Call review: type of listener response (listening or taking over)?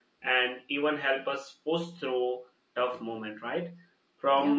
listening